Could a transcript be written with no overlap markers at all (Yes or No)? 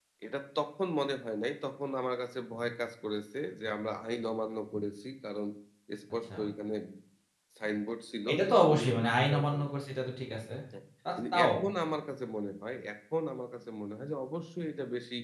No